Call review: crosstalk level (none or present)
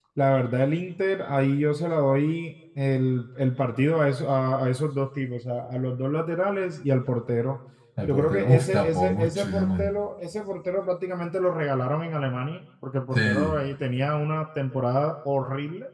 present